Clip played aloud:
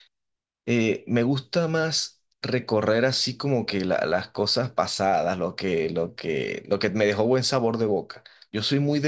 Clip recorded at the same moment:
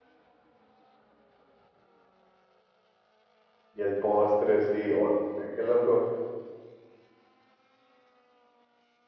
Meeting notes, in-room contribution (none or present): present